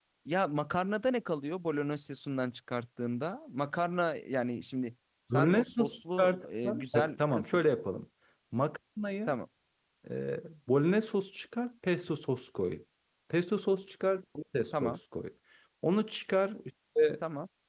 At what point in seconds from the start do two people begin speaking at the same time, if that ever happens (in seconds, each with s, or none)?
5.3 s